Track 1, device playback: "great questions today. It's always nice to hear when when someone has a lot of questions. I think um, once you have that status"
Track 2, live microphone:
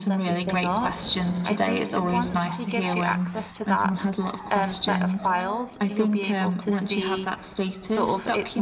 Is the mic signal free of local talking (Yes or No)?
No